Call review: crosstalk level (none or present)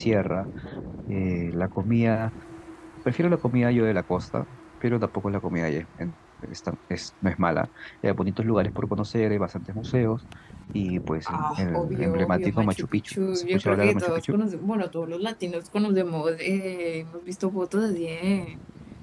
present